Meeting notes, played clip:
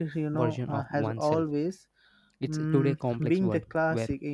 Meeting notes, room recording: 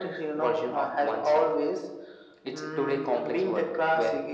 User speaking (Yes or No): No